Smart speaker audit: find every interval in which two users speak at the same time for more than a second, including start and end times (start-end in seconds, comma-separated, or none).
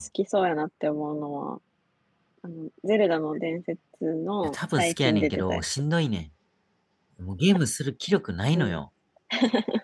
4.4-5.6